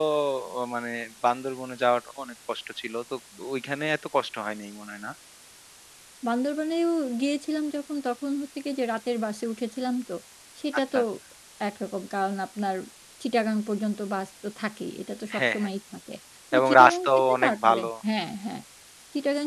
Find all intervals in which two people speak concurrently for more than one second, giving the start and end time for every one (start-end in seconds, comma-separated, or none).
16.6-17.9